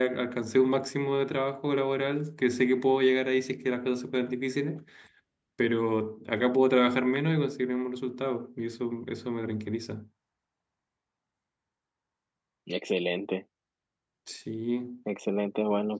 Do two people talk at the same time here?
No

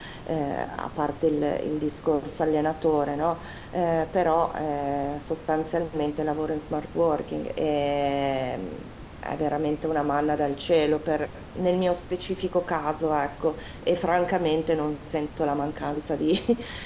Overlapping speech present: No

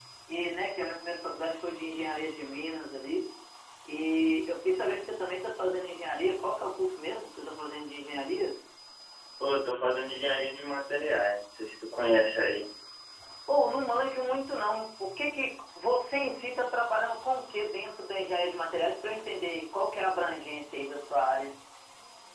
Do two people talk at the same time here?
No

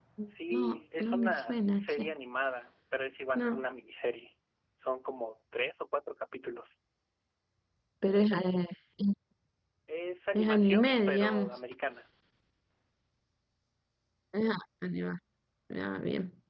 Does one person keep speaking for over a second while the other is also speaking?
Yes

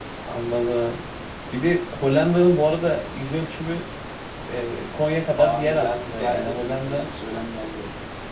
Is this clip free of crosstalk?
No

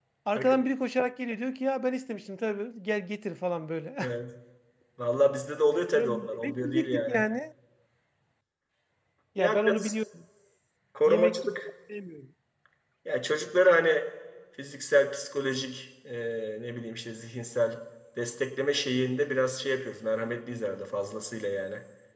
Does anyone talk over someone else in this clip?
Yes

